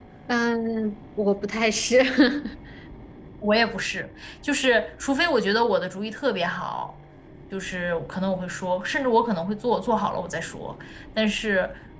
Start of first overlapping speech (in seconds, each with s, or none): none